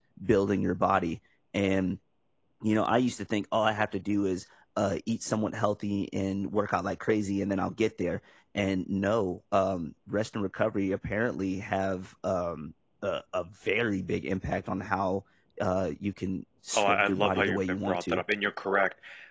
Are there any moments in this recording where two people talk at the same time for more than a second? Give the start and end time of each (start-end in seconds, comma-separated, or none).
16.8-18.2